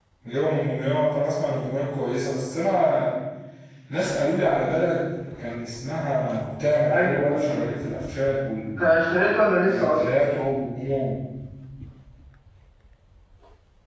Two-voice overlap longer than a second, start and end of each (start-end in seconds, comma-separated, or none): none